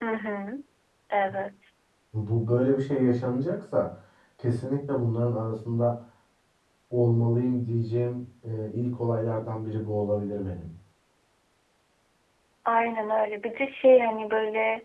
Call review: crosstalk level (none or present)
none